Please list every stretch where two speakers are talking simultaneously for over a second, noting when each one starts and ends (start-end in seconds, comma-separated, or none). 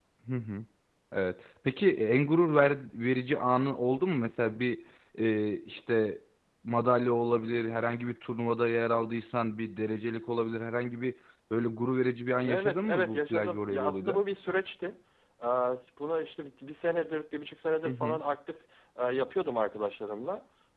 12.4-14.2